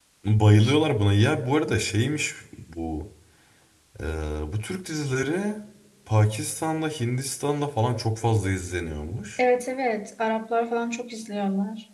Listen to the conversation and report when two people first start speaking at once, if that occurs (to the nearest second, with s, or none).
none